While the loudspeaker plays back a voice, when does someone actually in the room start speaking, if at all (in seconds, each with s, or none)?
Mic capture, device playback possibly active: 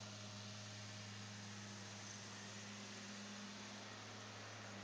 none